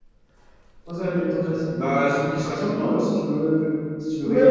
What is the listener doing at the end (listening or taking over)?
taking over